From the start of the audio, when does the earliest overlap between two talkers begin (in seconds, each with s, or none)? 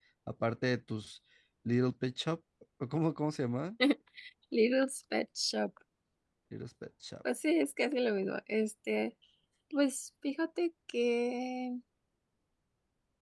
none